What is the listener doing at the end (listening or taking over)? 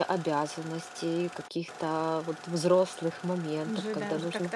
taking over